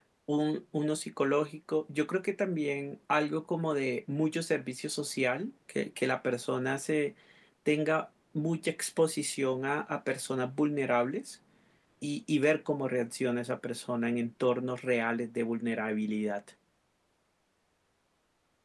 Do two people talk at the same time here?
No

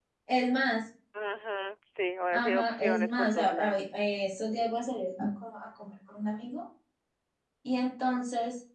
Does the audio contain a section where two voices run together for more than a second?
Yes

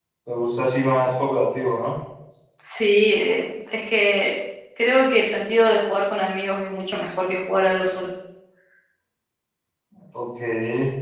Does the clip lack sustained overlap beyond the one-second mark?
Yes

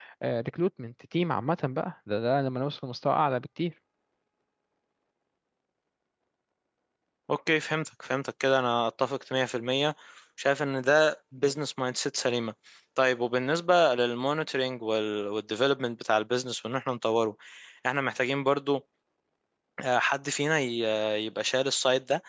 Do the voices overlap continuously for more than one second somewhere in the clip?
No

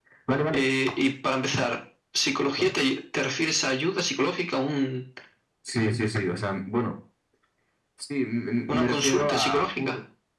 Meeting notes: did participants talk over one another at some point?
Yes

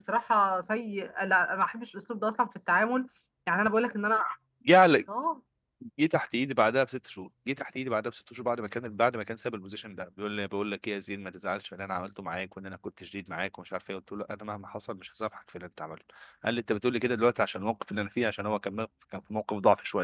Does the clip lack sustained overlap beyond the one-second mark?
Yes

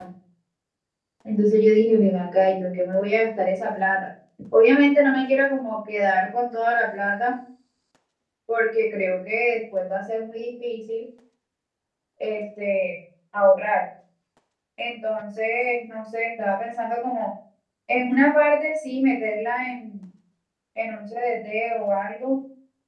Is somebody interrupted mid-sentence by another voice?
No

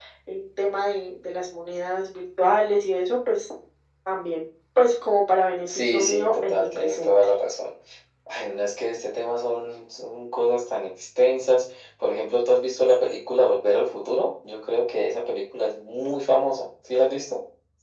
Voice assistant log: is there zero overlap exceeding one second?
No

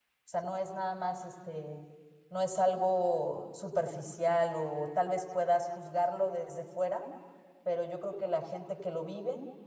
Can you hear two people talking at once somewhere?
No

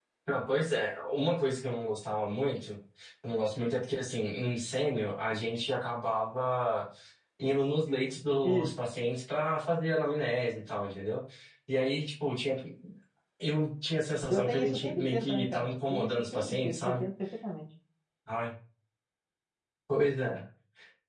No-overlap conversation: No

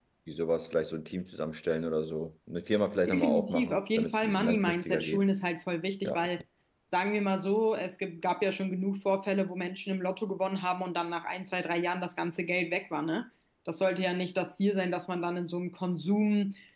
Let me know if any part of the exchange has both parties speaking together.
Yes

